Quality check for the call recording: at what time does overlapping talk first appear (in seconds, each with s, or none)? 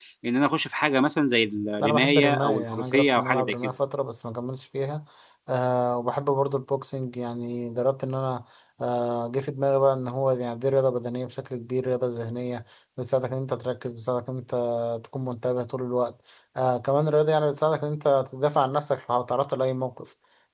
1.8 s